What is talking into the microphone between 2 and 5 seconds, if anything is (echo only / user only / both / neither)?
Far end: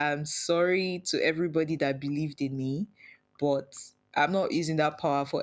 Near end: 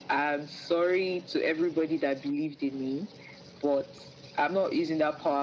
echo only